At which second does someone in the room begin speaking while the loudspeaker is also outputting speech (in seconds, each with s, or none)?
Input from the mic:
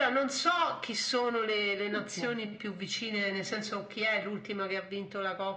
1.9 s